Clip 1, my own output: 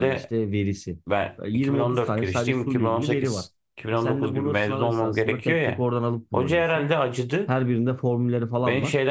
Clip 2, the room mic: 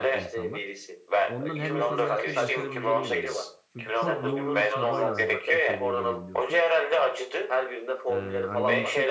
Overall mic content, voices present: both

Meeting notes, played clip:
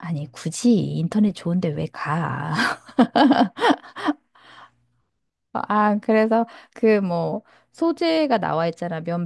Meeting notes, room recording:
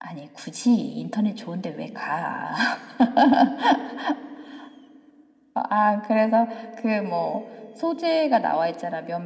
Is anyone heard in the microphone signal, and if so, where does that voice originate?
echo only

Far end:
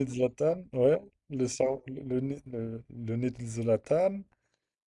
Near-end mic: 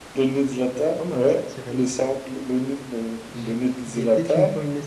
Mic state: both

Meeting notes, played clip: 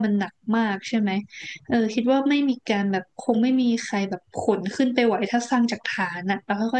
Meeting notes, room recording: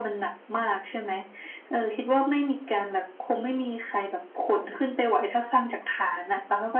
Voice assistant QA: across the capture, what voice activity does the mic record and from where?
echo only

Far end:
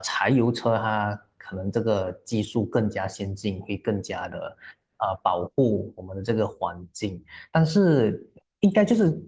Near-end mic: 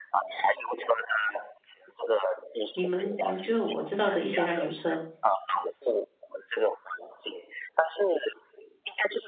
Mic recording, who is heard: both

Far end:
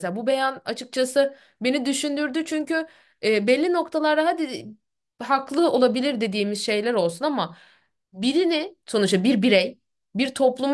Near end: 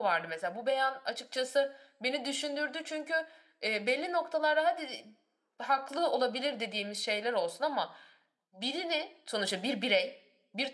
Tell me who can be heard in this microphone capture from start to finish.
echo only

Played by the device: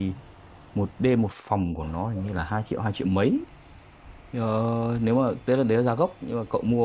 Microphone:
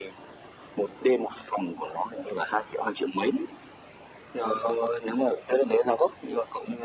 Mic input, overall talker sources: echo only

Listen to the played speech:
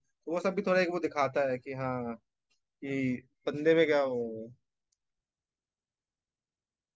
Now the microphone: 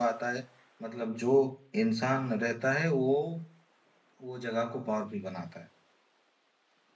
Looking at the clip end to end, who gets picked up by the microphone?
user only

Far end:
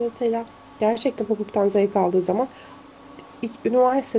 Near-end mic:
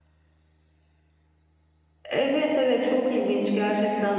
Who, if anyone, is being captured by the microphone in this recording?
user only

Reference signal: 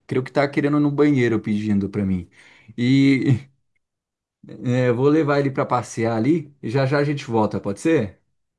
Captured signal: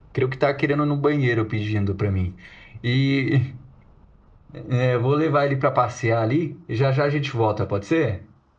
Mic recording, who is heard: echo only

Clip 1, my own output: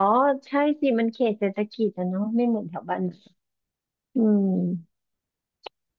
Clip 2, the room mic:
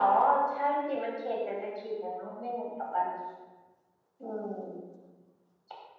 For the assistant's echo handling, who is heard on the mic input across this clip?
echo only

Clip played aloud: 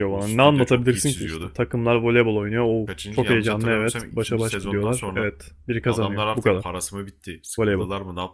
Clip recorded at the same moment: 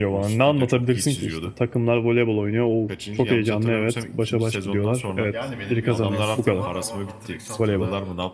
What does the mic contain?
both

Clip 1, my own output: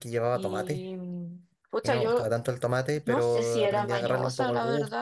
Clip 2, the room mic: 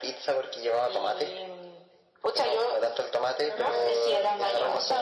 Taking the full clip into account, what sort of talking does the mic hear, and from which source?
both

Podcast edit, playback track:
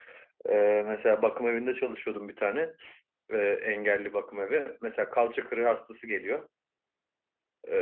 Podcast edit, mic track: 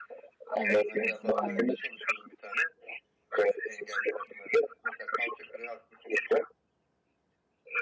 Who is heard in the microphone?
both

